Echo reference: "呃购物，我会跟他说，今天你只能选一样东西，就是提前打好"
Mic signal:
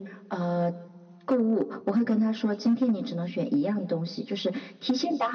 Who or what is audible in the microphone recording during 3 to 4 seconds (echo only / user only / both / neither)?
echo only